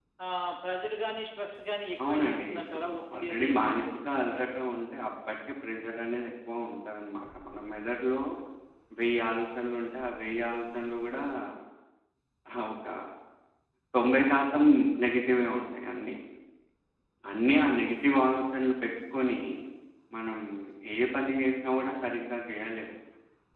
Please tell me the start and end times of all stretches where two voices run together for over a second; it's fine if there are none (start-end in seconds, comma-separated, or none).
2.1-4.4